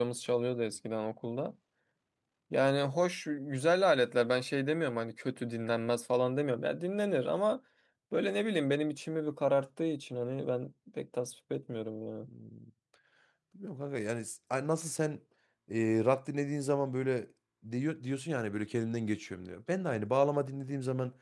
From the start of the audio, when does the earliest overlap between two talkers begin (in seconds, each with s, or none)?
none